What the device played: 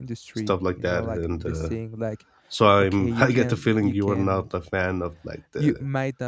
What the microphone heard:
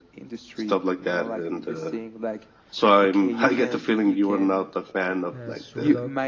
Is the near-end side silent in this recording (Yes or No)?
No